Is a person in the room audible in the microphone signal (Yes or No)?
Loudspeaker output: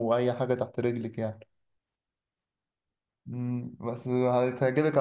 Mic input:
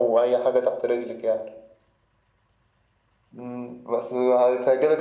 No